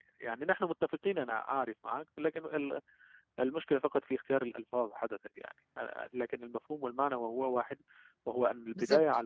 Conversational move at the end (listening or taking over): listening